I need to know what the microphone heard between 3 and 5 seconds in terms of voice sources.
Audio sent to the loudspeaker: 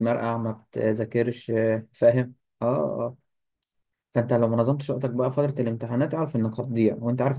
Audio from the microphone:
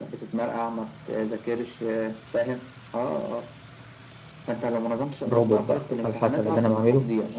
echo only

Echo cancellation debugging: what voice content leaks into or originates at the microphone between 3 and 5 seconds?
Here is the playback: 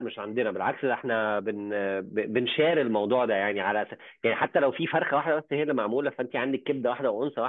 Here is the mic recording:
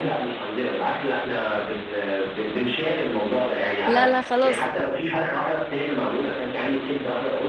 both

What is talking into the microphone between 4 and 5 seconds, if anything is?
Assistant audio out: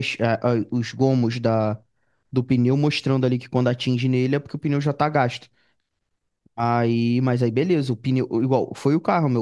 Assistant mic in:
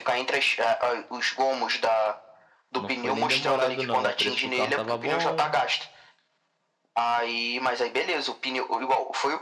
both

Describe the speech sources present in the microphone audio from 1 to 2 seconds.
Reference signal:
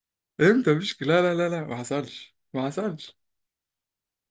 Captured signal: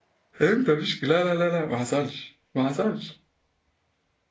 echo only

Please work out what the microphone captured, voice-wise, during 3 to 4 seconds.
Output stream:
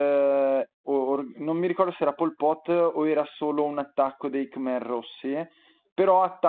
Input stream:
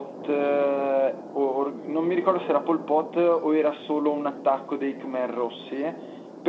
echo only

